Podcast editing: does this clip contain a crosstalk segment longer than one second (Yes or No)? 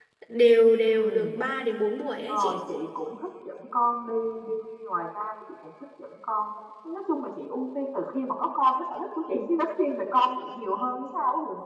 No